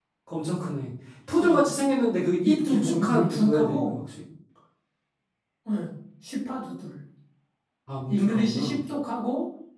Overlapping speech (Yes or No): Yes